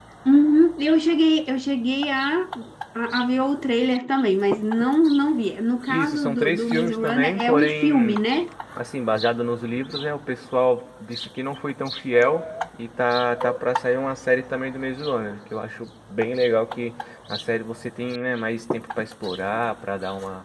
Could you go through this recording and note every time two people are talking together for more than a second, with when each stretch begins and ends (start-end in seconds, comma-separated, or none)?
5.9-8.2